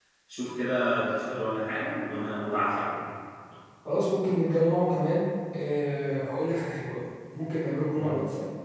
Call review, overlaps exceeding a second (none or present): none